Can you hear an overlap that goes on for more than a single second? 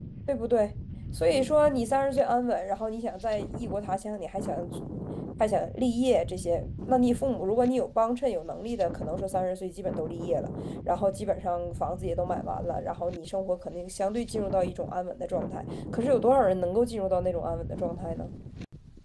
No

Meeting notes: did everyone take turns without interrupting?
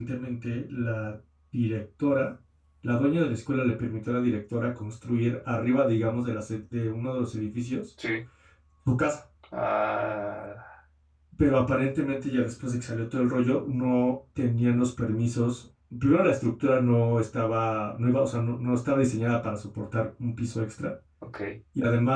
Yes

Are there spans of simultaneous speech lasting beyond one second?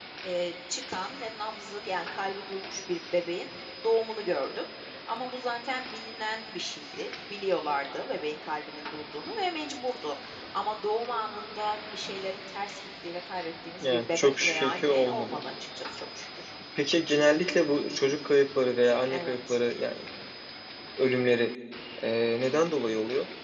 Yes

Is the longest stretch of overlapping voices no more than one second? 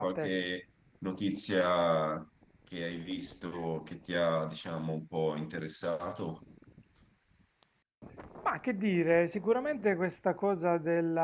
Yes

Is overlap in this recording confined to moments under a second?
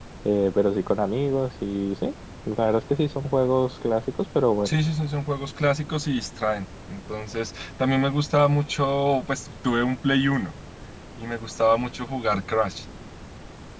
Yes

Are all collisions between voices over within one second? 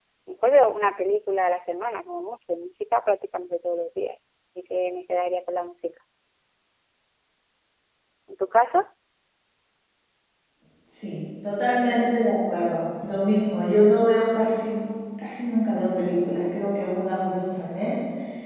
Yes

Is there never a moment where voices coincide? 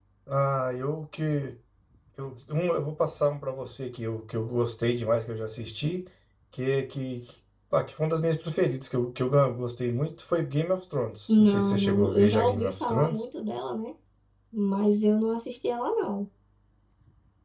No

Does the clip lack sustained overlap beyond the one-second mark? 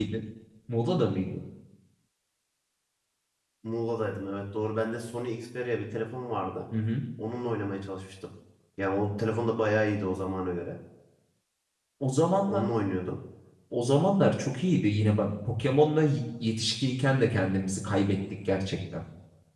Yes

